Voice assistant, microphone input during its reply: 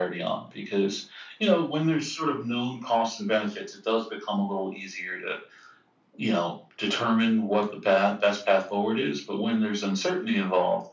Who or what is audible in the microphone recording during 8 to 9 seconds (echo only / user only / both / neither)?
echo only